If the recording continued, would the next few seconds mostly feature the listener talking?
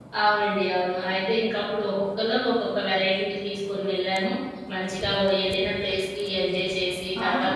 Yes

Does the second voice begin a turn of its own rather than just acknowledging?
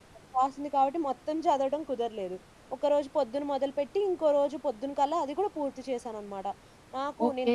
No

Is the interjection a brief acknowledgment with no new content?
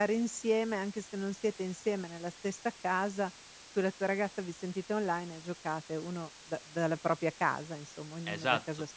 No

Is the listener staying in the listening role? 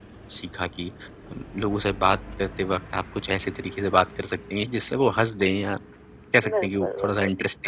No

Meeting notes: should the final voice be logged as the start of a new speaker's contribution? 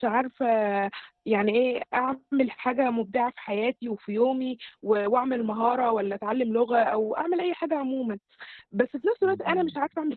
No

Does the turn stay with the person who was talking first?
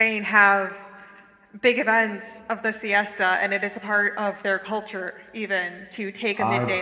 No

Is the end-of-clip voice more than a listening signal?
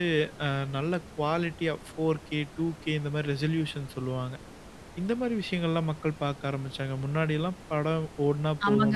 Yes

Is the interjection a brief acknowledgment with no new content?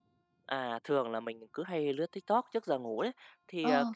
Yes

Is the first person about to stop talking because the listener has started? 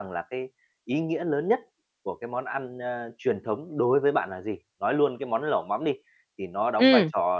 No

